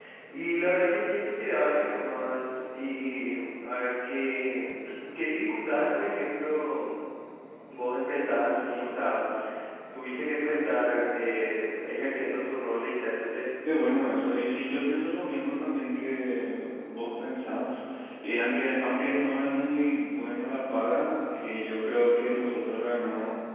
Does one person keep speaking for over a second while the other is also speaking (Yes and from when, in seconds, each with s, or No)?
No